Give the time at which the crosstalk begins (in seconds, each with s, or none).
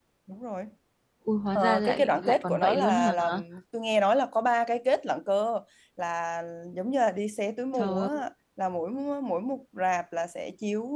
1.6 s